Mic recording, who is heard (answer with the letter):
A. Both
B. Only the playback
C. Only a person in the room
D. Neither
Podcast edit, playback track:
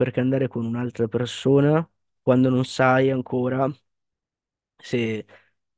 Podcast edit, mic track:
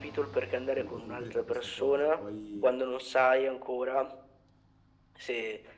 A